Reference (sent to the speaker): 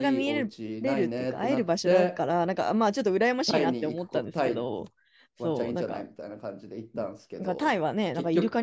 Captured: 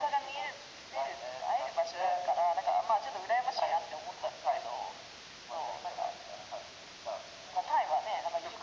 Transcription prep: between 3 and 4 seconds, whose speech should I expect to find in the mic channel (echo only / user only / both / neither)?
echo only